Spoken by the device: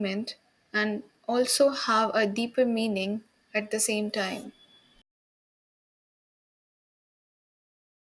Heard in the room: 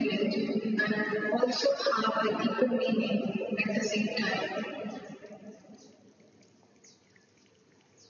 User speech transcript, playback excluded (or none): none